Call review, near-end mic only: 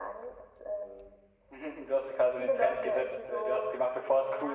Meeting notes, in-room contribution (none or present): none